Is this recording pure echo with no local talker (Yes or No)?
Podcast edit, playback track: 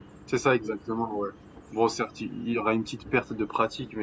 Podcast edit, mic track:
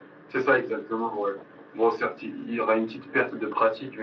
Yes